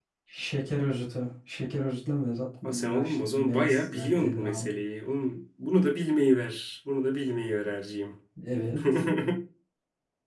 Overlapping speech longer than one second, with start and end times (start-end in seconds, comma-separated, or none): 2.6-4.7